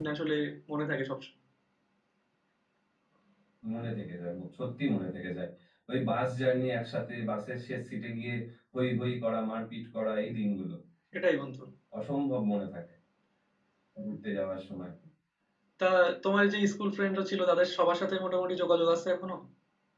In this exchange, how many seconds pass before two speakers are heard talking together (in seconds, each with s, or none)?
none